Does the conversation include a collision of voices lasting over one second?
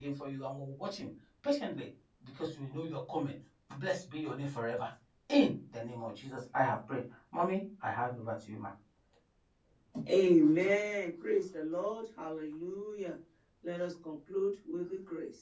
No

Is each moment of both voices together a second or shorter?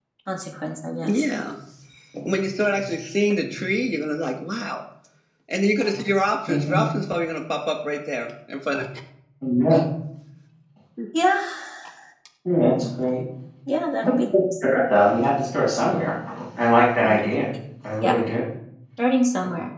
Yes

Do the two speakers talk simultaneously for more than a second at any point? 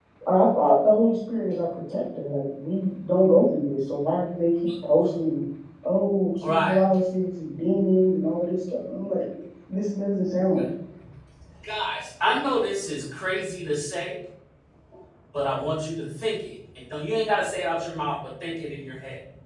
No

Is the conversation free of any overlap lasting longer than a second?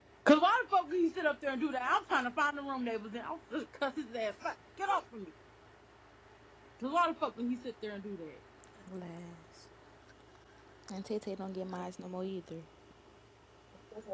Yes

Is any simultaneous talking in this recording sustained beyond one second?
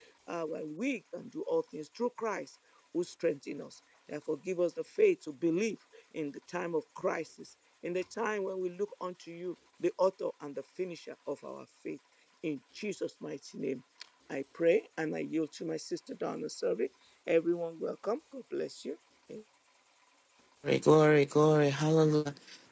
No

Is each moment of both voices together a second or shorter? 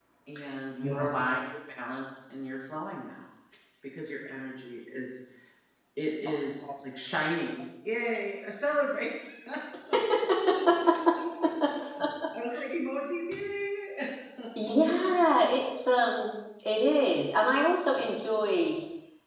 Yes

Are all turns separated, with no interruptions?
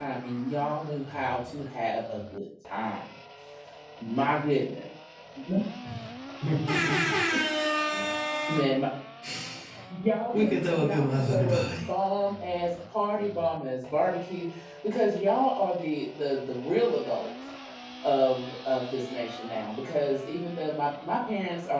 No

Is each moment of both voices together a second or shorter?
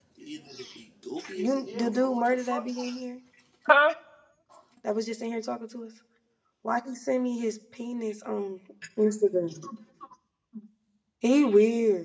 No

